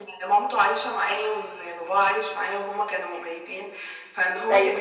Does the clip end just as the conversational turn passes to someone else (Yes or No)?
No